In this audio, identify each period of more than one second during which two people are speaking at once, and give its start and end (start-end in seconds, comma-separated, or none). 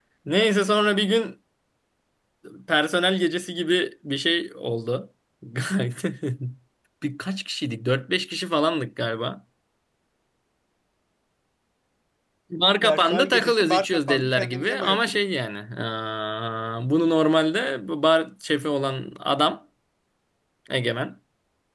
12.8-15.2